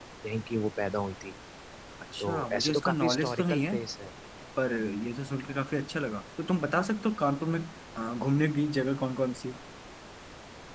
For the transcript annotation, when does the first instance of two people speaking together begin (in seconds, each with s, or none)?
2.2 s